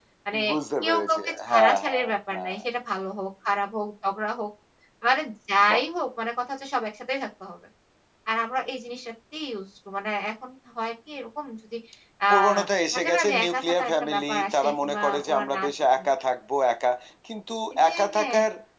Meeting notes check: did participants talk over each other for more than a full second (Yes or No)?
Yes